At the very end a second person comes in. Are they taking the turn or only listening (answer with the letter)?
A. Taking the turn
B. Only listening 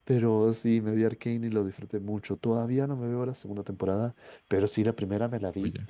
B